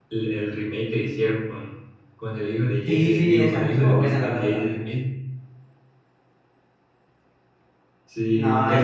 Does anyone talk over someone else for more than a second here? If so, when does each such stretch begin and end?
2.9-5.0

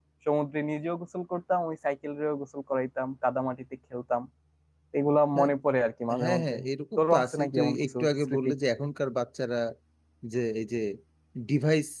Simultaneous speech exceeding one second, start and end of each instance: 7.0-8.5

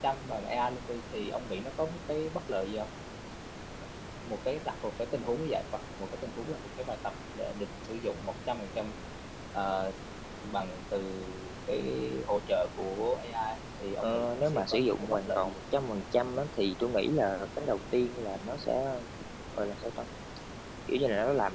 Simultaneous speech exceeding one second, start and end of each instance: 14.0-15.6

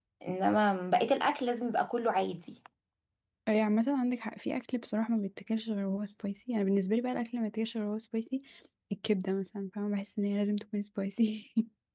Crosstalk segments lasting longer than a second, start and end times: none

